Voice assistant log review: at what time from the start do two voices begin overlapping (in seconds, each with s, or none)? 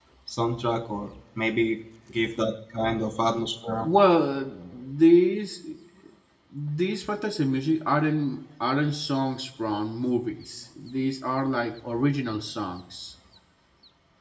none